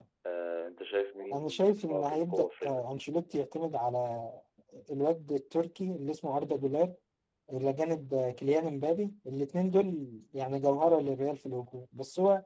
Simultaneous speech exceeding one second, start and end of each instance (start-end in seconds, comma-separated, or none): 1.3-2.8